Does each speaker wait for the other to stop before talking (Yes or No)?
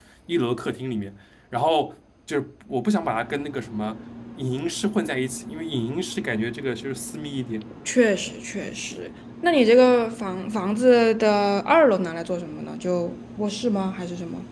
Yes